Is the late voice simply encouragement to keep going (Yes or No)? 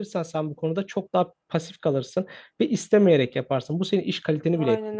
No